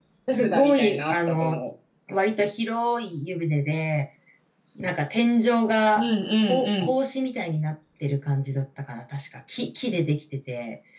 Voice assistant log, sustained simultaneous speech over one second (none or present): present